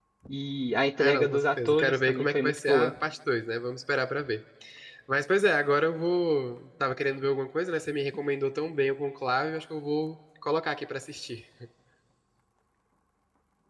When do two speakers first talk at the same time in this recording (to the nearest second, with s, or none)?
1 s